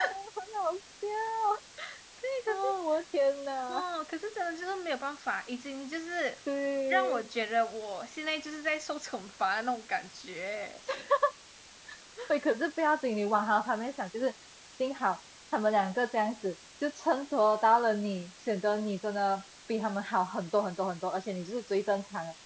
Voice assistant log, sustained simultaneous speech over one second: none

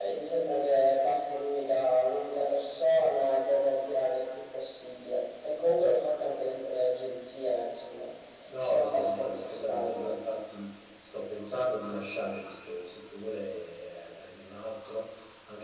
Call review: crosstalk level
present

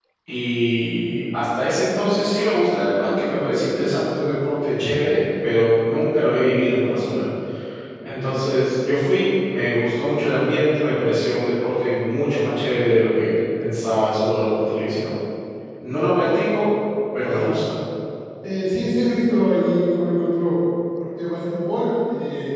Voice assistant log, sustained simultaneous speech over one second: none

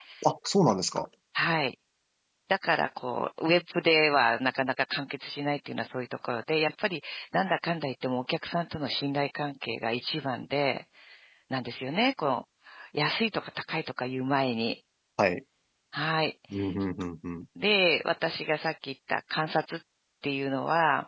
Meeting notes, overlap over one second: none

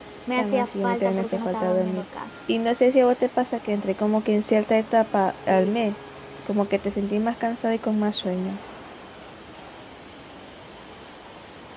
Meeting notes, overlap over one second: present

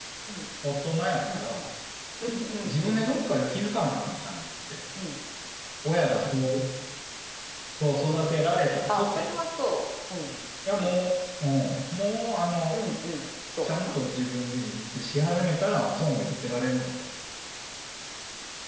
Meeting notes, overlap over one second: none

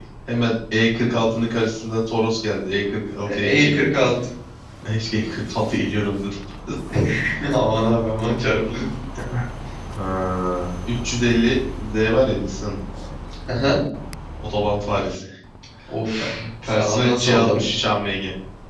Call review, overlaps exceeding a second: present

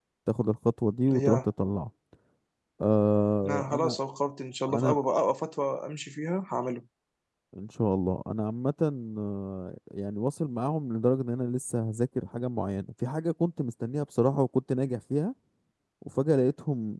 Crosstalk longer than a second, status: none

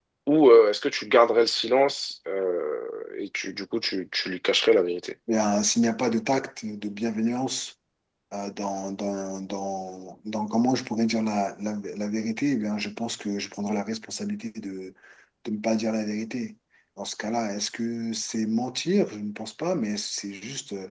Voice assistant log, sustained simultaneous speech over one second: none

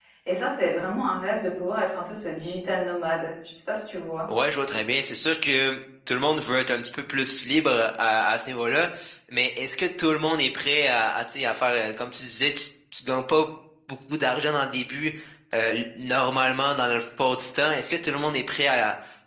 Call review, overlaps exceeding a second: none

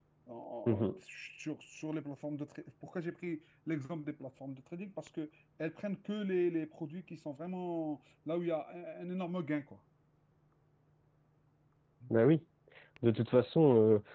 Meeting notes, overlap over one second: none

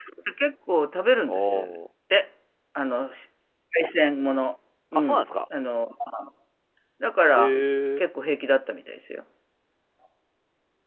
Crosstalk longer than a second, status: none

